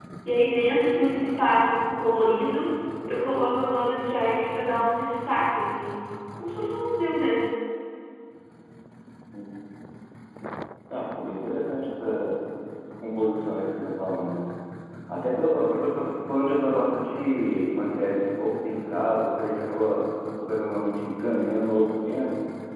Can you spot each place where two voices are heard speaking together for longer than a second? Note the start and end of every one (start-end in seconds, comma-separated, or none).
none